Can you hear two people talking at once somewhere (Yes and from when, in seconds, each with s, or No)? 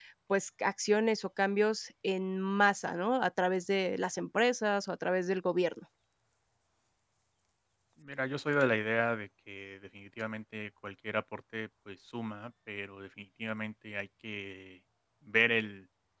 No